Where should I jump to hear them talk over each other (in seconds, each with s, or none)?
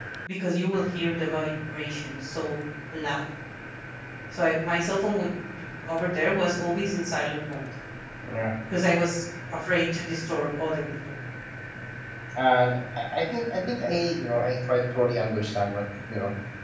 none